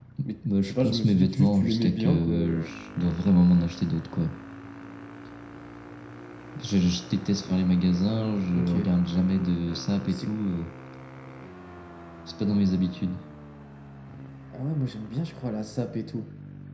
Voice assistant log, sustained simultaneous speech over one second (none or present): present